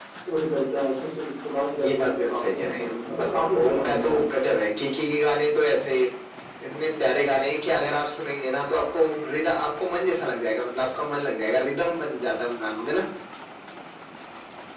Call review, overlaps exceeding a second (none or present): present